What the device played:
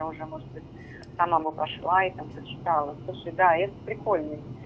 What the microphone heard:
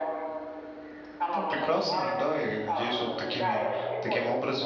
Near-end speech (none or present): present